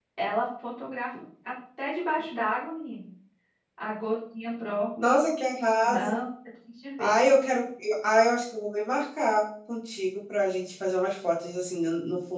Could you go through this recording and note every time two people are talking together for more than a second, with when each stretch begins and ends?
none

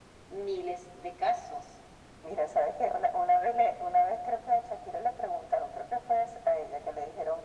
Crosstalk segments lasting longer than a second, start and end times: none

